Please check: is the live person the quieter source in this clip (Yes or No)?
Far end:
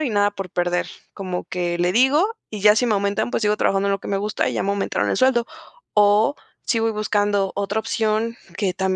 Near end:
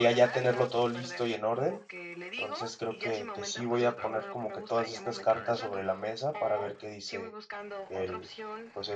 No